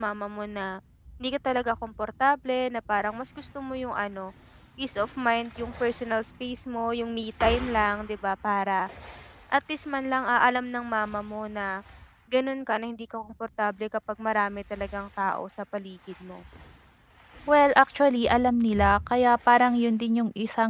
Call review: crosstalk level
none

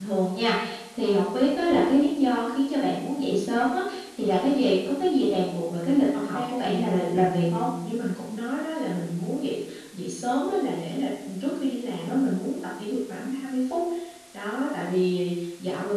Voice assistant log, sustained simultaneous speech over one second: present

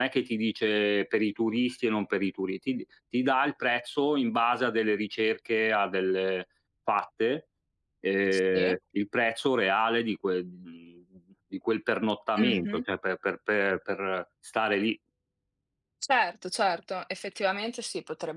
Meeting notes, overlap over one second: none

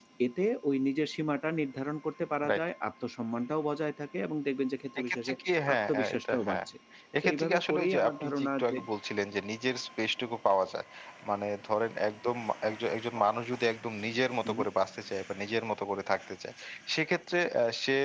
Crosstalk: present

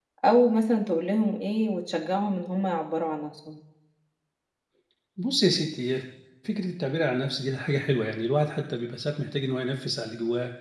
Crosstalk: none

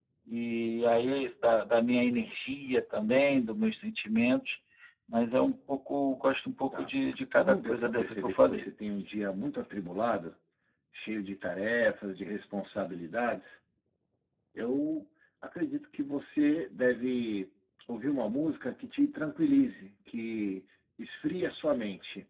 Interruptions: present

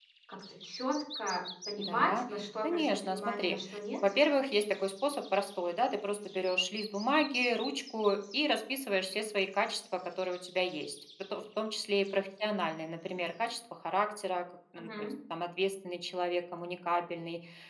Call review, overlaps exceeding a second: present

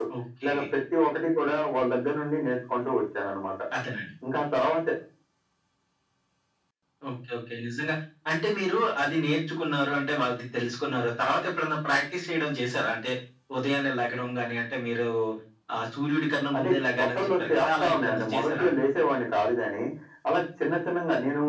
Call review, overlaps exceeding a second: present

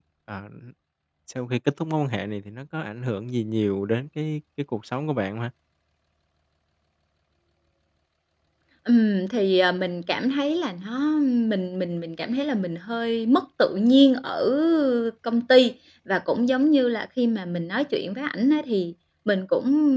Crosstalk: none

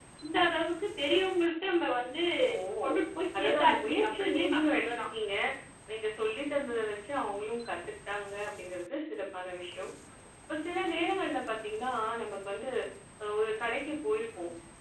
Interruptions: present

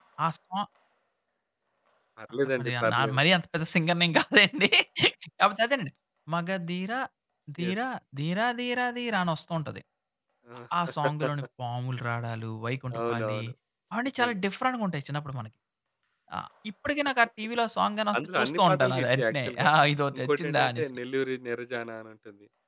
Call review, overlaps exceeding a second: present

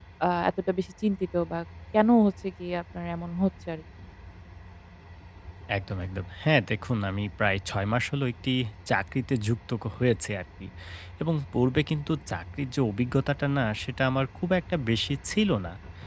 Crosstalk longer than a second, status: none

